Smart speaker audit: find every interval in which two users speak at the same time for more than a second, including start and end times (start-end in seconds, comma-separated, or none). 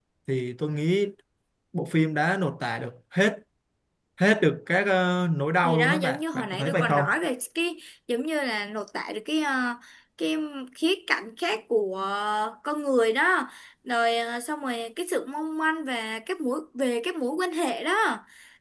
5.6-7.0